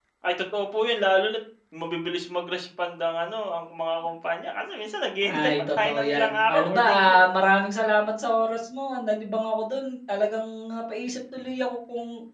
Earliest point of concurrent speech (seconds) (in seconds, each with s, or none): 5.2 s